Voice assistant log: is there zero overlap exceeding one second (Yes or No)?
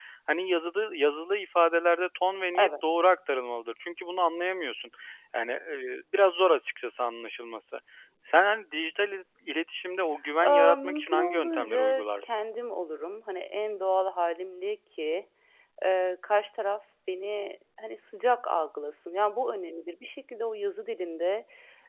No